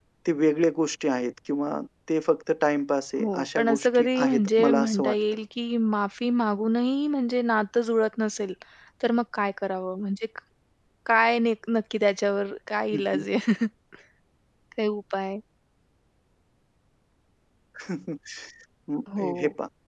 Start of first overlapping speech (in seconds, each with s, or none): 3.2 s